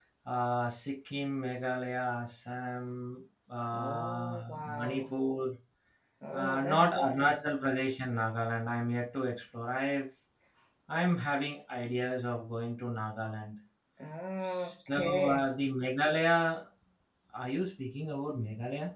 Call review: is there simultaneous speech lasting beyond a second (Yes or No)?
Yes